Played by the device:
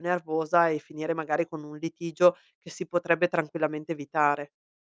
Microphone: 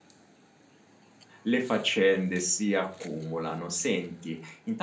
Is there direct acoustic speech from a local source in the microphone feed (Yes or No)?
Yes